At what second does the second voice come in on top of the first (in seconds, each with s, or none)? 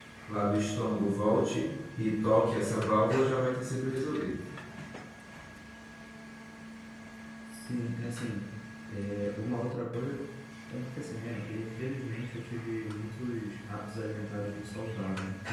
none